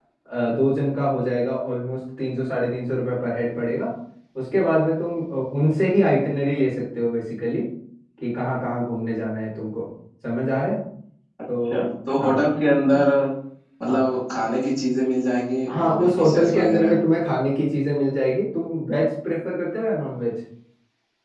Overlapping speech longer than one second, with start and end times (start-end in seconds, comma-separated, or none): 15.7-17.0